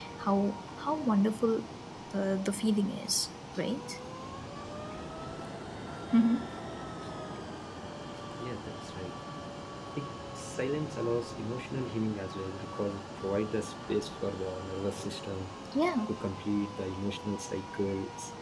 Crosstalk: none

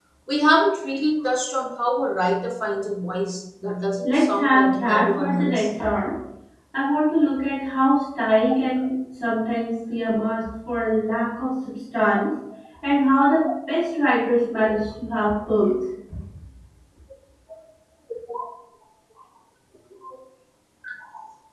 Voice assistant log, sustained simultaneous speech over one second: present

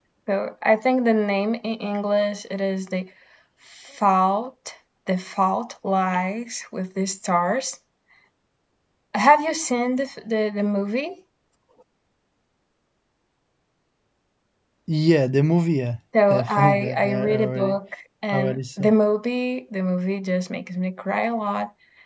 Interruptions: present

